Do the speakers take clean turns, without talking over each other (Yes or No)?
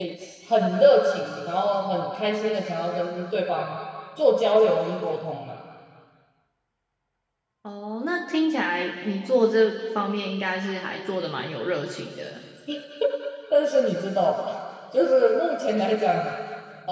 Yes